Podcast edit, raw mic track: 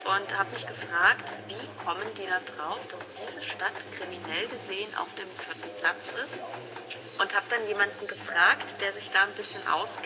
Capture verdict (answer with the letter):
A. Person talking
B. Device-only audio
A